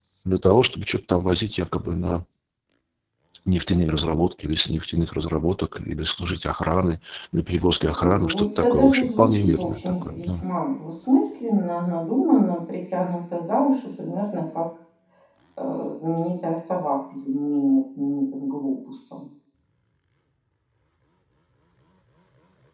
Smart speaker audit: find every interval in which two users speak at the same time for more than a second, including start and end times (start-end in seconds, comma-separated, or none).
7.8-10.4